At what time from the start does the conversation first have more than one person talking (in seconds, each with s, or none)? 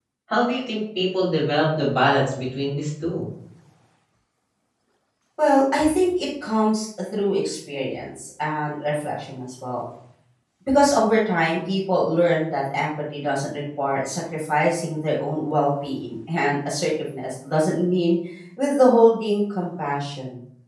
none